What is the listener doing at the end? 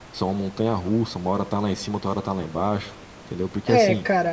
taking over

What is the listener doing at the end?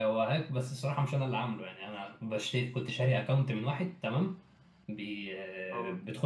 listening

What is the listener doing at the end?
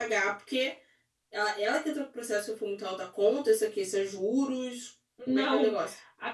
taking over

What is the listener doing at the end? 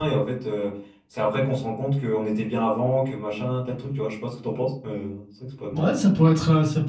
taking over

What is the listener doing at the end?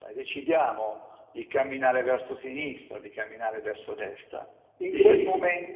listening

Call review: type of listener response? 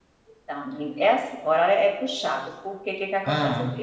listening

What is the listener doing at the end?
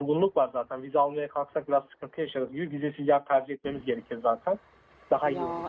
taking over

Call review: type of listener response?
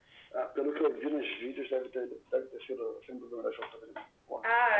taking over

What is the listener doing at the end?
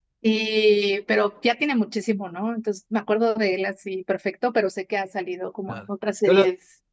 taking over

